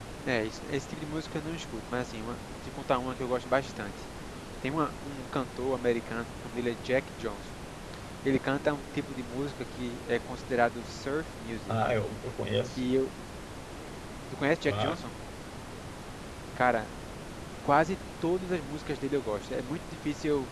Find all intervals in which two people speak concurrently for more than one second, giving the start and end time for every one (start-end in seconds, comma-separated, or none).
none